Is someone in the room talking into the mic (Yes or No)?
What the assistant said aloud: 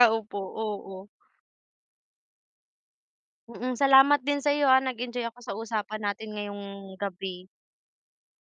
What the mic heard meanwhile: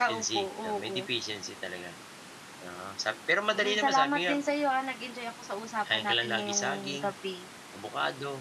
Yes